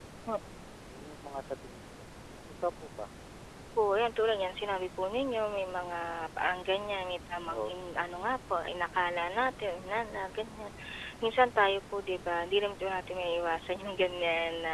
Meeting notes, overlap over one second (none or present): none